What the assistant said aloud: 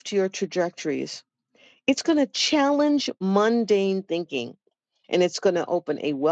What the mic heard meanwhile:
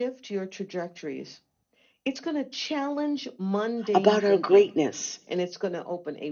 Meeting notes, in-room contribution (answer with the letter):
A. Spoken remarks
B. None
A